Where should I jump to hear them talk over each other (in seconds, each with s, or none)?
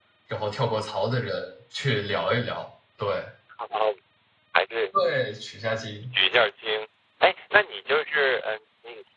none